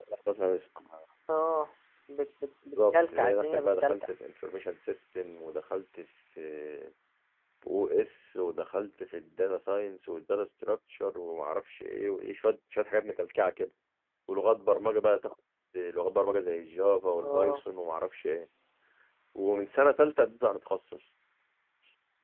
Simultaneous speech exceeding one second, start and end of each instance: 2.7-4.1

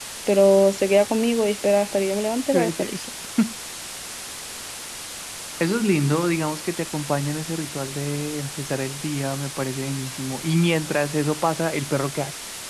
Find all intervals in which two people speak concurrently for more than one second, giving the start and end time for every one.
none

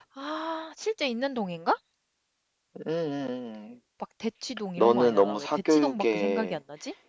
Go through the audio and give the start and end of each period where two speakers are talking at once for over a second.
4.8-6.6

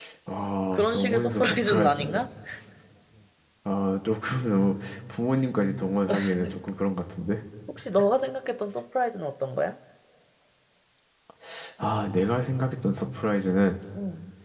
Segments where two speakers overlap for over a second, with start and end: 0.7-2.0

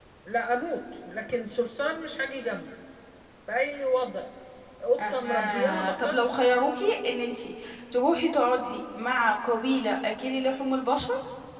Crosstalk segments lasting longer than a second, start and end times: 5.0-6.3

